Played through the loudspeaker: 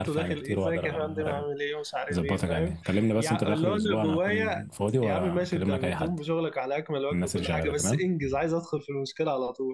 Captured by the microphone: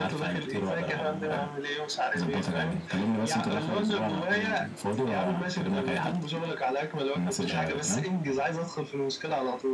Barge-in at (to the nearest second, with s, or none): none